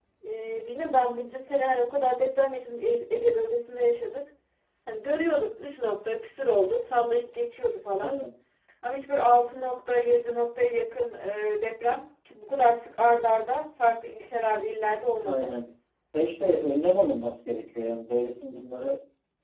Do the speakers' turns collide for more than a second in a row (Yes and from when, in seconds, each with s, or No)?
No